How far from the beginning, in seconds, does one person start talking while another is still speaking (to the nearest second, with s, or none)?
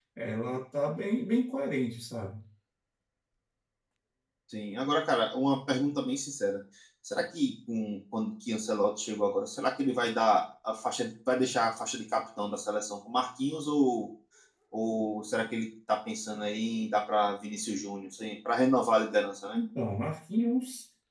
none